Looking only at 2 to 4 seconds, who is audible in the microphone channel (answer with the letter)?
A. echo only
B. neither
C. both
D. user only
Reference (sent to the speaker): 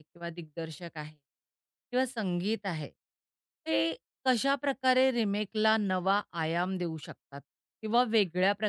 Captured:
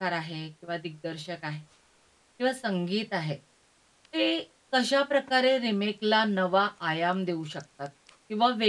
A